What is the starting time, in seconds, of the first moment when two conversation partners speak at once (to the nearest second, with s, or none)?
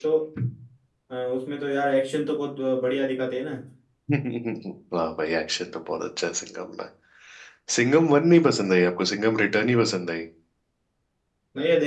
none